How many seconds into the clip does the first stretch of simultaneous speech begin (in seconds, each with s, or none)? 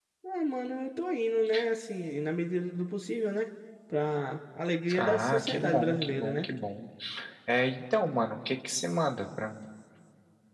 4.9 s